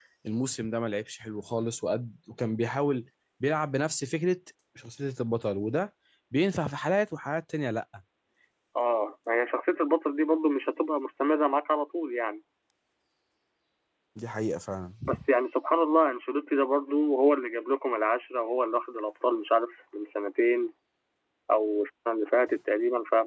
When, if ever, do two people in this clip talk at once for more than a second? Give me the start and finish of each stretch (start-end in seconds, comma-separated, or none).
none